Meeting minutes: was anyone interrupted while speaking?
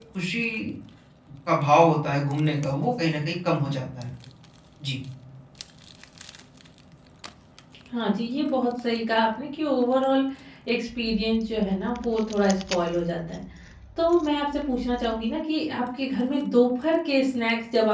No

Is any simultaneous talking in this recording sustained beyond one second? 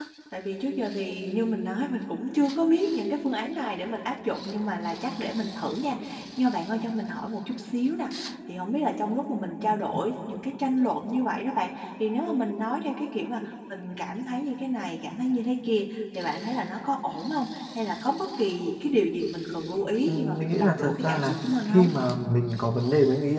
Yes, from 20.0 s

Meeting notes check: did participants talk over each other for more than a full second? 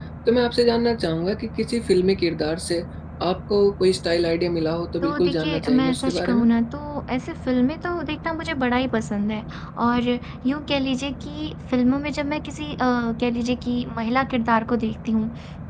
Yes, from 5.0 s

